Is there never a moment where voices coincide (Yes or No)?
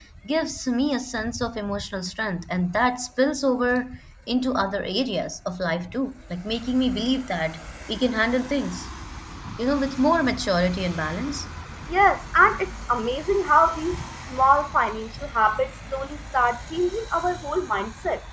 Yes